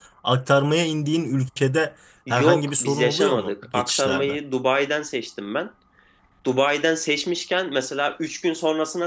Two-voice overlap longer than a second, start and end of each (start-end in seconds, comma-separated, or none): 2.3-4.4